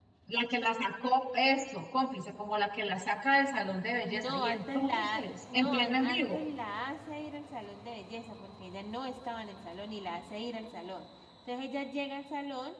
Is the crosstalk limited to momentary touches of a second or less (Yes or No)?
No